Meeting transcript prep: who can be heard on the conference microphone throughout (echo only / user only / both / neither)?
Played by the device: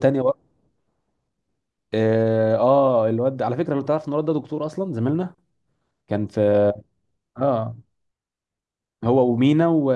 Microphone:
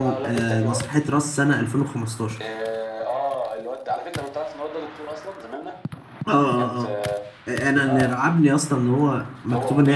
both